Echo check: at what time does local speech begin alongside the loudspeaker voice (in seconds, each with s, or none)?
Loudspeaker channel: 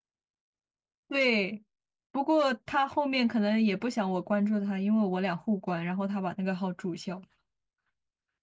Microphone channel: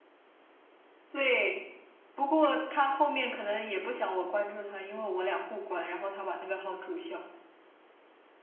none